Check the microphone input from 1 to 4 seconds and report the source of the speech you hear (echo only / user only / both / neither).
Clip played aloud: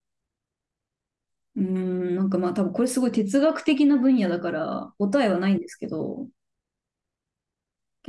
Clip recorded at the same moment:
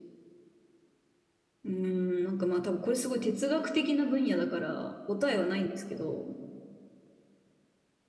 echo only